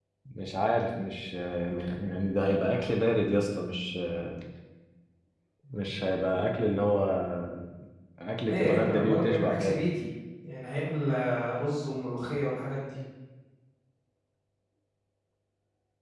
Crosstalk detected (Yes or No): Yes